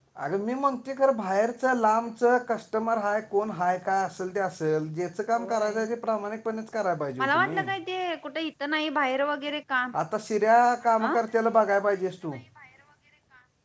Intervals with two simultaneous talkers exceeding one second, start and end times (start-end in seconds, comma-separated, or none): none